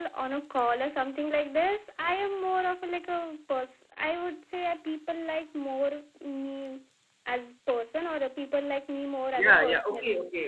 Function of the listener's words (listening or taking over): taking over